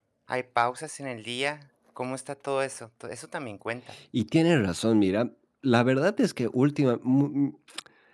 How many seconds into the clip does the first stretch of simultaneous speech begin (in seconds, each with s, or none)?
none